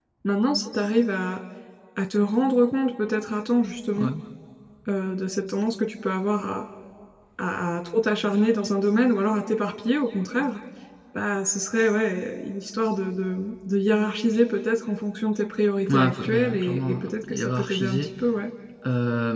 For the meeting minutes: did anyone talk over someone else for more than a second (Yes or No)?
Yes